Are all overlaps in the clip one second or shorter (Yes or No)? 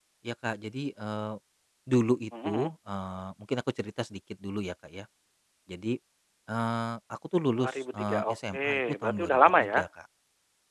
No